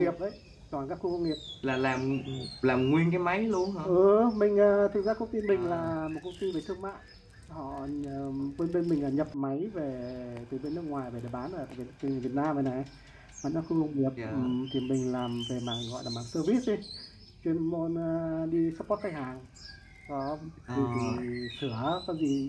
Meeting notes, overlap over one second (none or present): none